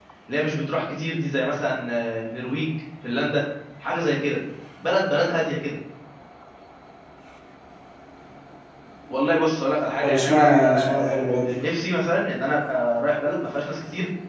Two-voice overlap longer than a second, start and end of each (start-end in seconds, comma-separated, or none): 10.0-11.6